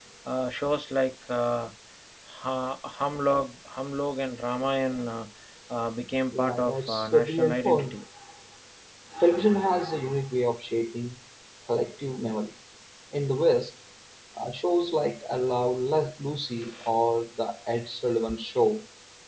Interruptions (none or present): present